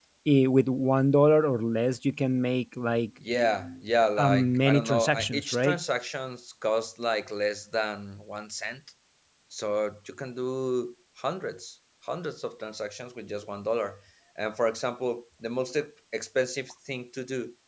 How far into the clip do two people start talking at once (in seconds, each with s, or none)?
4.2 s